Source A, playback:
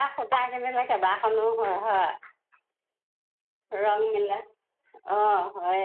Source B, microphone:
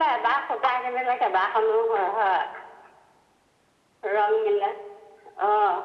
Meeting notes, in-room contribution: none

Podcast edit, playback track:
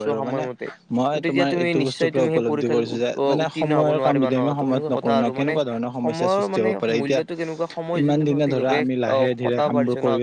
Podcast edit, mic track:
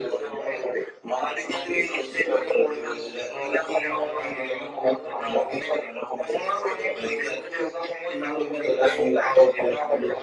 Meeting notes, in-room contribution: none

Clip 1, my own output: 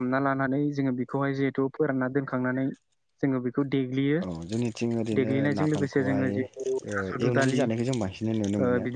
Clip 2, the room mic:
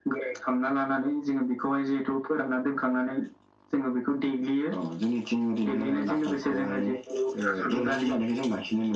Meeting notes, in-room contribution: none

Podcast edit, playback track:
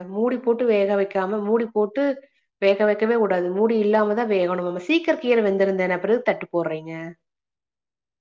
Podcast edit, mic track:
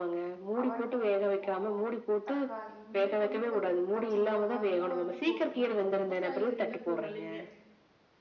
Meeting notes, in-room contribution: present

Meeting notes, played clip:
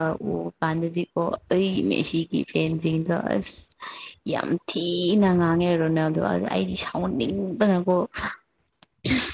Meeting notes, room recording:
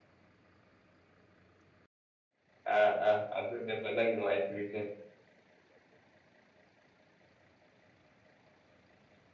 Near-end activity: present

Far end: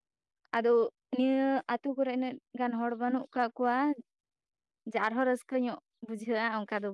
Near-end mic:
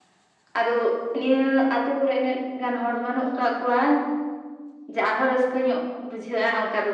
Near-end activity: none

